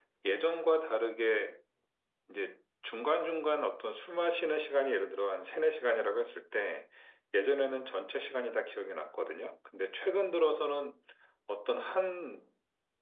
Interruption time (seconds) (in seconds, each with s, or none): none